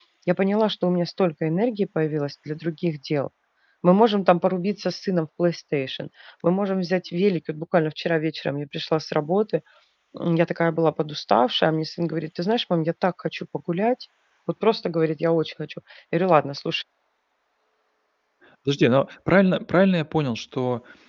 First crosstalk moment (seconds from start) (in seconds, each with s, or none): none